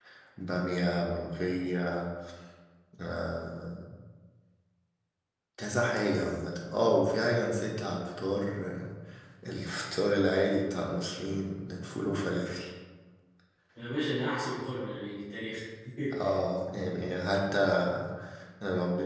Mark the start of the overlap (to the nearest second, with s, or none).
none